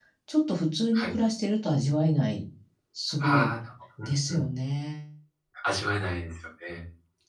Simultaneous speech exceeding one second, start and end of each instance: none

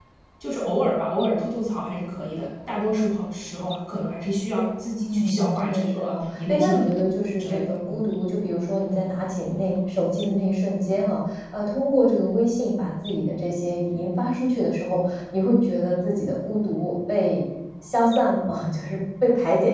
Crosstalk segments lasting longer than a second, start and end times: 5.1-8.0

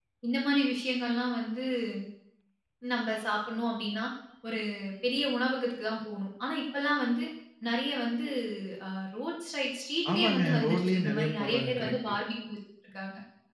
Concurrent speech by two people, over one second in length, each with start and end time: 10.1-12.1

